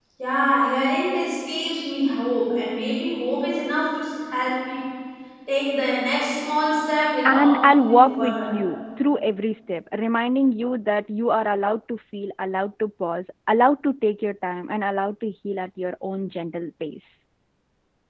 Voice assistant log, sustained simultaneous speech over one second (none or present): present